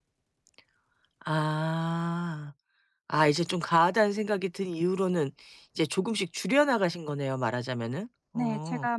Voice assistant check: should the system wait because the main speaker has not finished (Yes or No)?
No